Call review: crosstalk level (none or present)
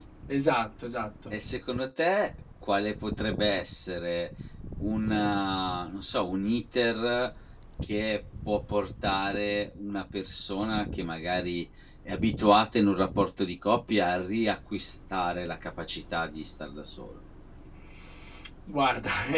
none